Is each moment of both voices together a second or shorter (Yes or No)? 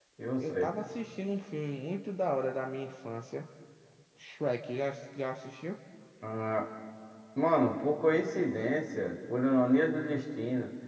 Yes